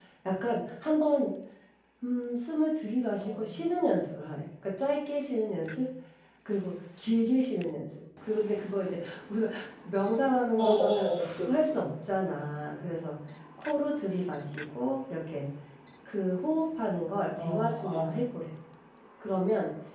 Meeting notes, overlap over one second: present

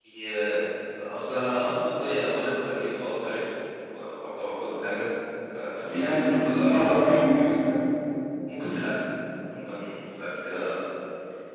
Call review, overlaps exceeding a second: present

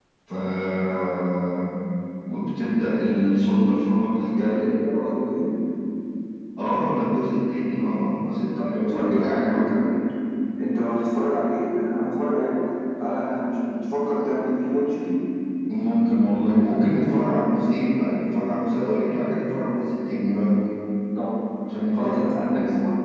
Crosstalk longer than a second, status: present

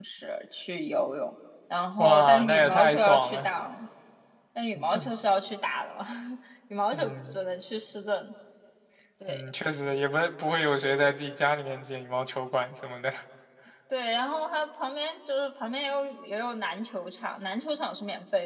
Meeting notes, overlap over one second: present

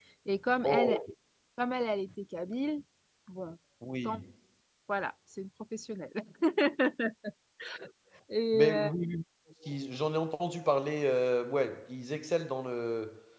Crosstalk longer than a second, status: none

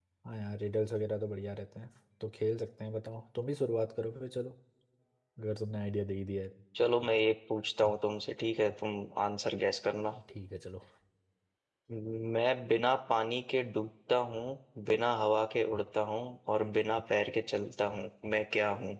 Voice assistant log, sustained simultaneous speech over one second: none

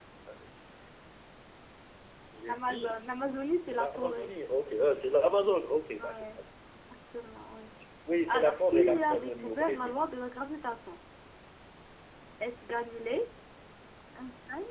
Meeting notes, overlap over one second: present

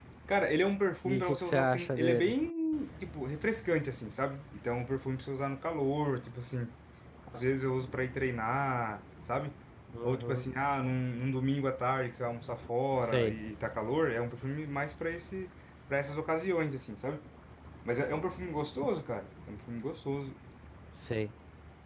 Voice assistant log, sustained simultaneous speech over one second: present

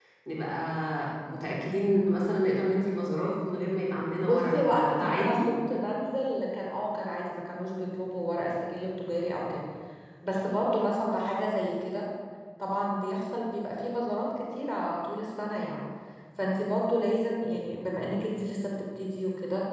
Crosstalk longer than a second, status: present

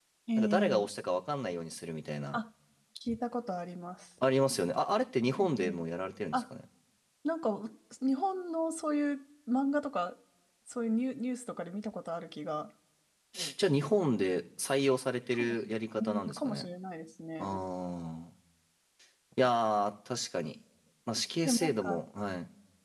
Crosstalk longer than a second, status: present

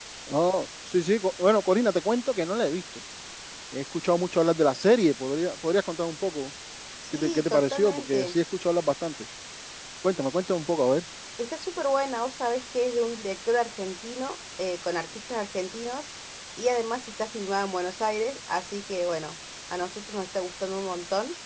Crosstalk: present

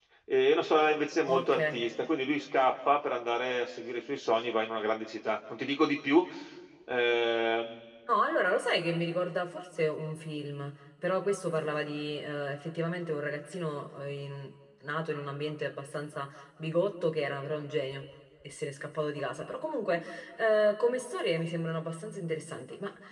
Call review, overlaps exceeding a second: none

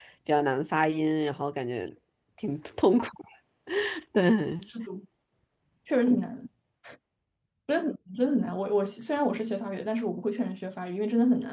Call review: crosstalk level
none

